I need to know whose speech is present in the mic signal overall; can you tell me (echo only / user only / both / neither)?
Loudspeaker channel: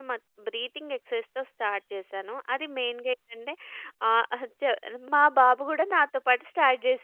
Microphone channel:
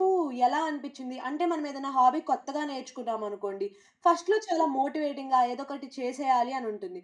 user only